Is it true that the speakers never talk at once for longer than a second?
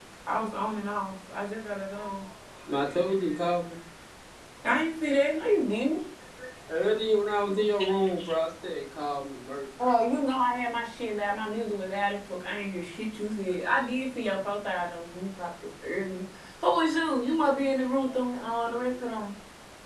Yes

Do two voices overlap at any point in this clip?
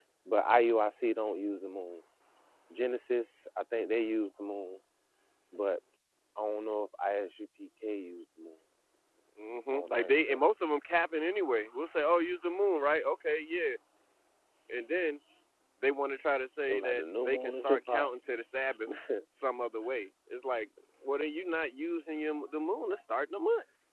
Yes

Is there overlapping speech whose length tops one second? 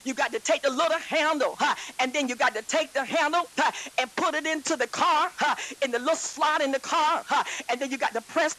No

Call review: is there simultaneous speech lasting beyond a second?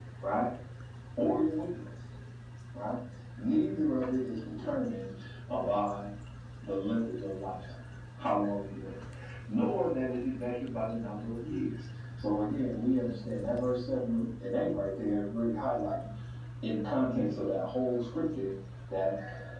No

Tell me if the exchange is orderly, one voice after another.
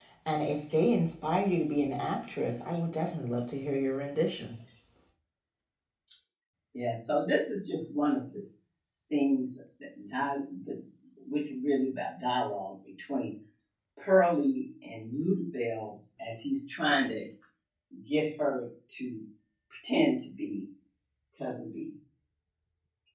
Yes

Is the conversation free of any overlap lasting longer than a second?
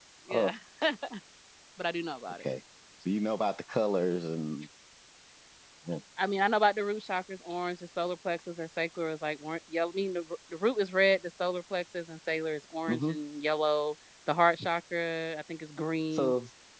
Yes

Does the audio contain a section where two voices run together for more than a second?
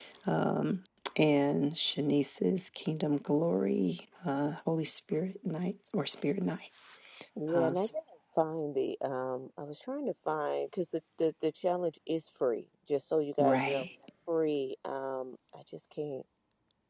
No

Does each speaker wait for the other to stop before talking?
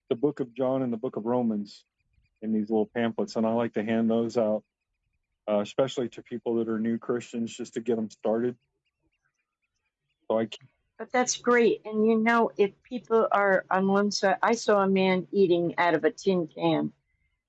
Yes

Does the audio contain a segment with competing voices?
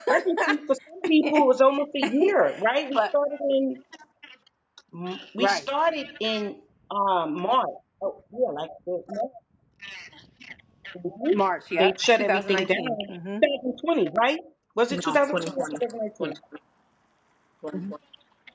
Yes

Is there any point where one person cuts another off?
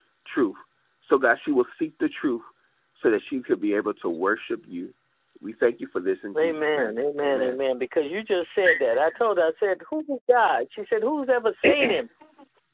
Yes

